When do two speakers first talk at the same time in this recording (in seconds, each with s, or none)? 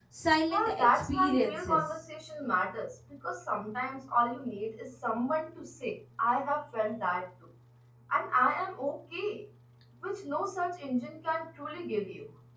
0.5 s